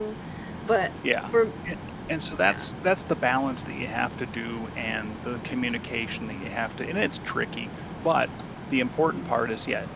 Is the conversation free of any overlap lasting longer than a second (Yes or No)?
Yes